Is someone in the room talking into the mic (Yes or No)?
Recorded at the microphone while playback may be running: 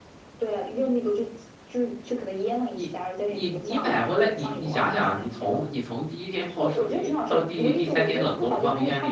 Yes